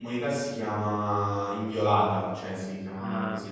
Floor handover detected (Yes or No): Yes